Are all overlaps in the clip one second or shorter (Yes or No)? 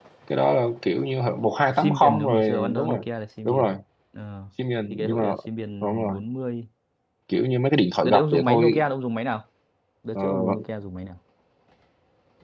No